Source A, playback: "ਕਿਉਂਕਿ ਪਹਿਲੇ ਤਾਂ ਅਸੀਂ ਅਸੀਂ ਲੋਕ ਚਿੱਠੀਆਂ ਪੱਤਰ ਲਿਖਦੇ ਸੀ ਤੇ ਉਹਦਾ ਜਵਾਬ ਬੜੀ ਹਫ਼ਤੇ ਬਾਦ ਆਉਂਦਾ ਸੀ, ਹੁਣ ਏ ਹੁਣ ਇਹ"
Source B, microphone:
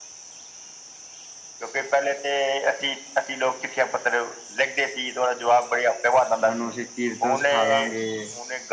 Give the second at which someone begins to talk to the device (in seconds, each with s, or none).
6.3 s